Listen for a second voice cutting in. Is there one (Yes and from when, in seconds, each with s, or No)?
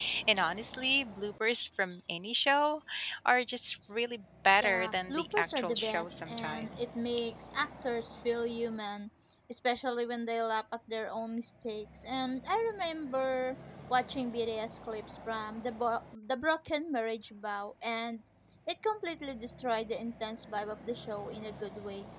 Yes, from 4.6 s